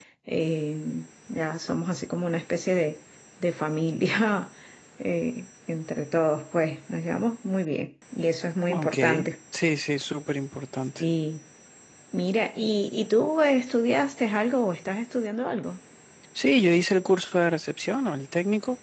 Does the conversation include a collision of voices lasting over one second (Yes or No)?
No